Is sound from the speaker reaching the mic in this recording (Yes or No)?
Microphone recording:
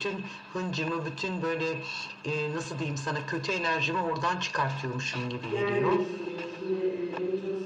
Yes